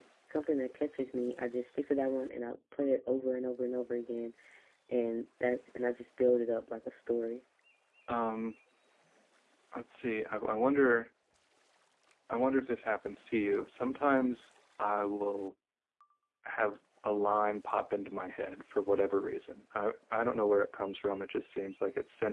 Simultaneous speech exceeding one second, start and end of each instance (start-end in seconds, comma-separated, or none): none